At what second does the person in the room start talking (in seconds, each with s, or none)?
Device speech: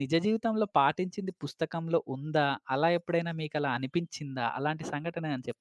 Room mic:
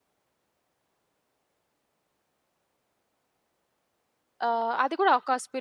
4.5 s